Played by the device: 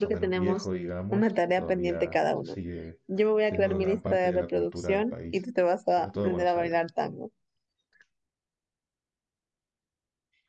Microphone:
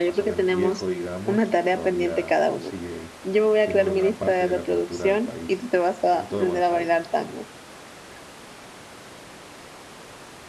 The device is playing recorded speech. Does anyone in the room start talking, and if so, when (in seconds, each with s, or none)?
none